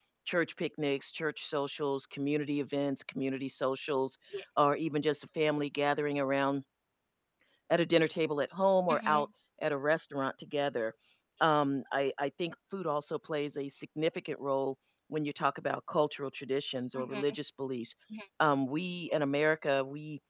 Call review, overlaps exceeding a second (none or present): none